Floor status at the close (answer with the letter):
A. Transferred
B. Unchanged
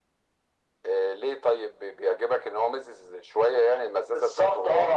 A